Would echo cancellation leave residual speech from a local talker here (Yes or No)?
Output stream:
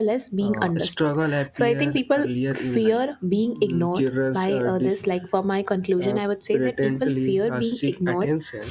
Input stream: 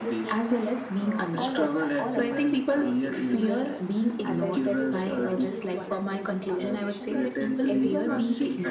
Yes